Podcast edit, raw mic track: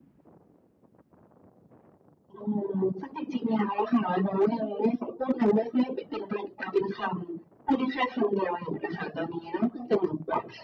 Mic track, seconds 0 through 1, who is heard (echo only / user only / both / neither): neither